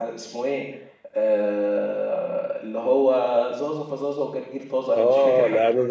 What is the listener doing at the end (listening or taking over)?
taking over